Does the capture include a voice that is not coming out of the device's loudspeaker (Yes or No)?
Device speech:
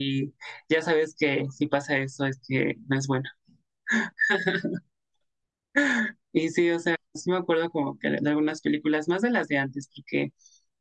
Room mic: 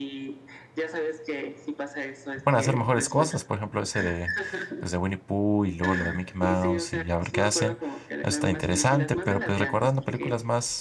Yes